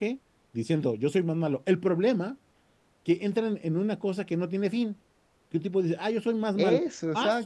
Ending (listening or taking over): listening